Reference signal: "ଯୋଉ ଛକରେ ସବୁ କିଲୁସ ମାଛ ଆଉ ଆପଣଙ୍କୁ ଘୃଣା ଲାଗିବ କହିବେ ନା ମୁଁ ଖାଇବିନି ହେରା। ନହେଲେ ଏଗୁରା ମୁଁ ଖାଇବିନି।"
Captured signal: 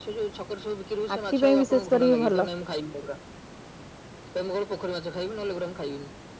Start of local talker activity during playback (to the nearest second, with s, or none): 1 s